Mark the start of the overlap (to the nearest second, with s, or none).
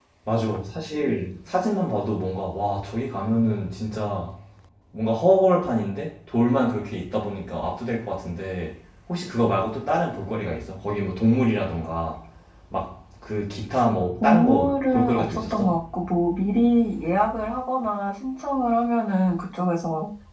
14 s